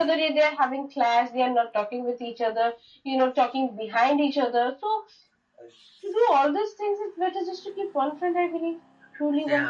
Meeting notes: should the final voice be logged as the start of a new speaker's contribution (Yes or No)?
Yes